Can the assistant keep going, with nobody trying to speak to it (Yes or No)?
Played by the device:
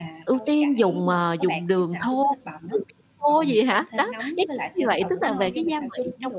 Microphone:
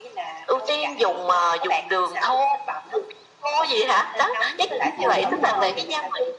No